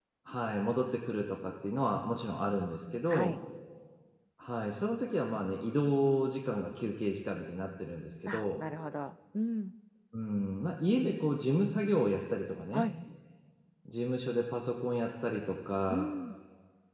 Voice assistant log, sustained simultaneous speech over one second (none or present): none